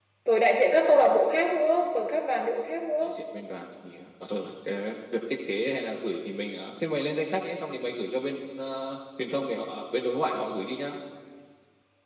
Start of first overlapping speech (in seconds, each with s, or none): none